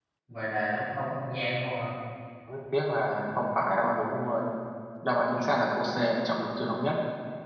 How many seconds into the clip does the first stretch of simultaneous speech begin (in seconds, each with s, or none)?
none